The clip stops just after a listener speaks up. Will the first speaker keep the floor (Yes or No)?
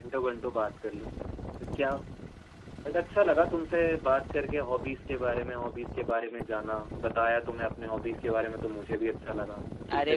No